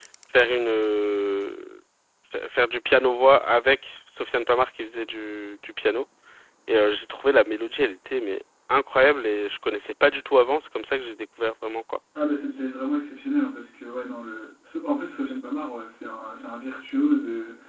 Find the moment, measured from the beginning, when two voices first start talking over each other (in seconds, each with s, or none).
none